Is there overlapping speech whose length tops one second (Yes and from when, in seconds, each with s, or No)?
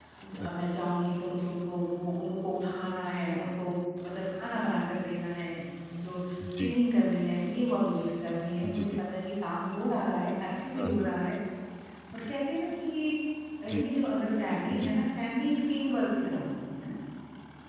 No